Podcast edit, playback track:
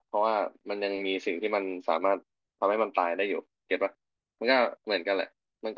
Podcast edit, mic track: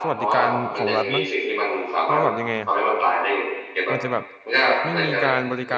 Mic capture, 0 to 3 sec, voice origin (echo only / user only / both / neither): both